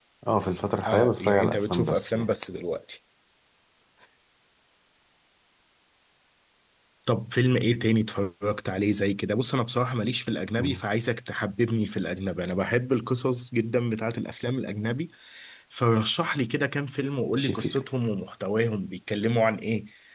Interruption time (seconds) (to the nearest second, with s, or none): 1 s